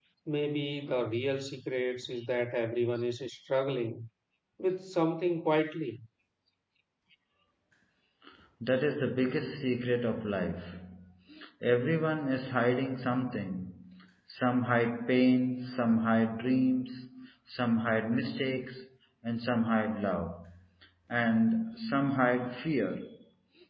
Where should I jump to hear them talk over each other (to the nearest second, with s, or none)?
none